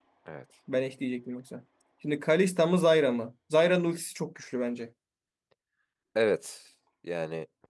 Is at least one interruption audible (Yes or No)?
No